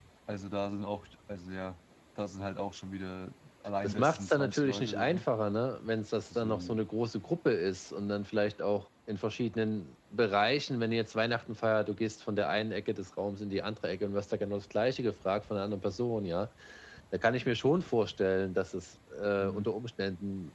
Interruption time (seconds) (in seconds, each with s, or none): 3.8 s